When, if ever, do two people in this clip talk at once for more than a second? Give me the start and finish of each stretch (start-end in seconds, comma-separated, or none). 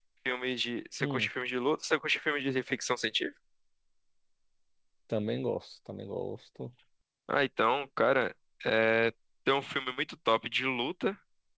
none